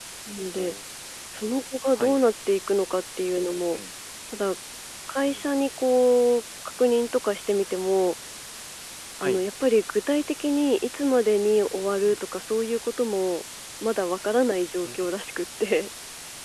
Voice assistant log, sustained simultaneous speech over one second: none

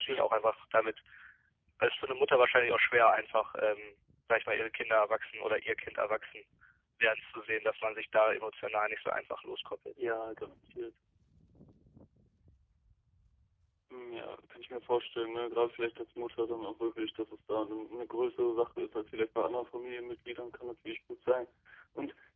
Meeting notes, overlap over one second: none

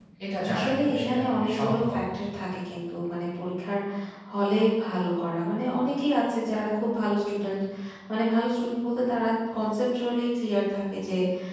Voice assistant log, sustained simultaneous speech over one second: present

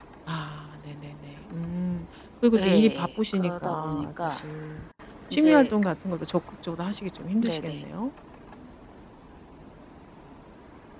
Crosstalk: present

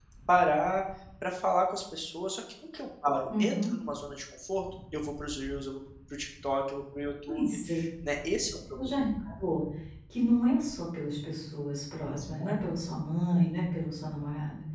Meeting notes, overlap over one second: none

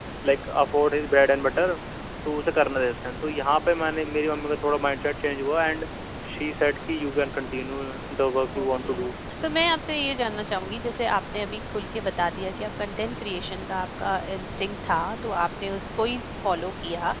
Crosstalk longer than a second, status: none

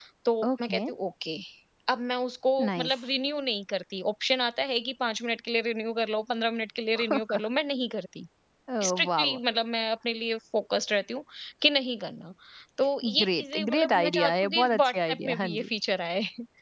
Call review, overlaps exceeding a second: present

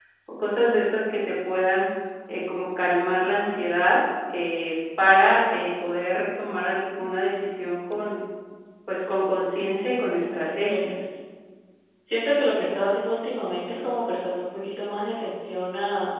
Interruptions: present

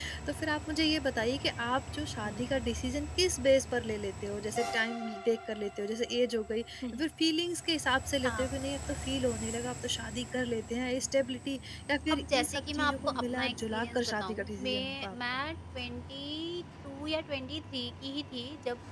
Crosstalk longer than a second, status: present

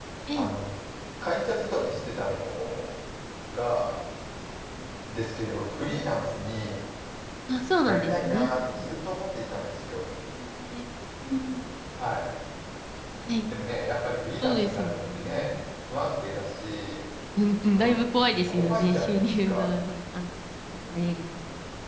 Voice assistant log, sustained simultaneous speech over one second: present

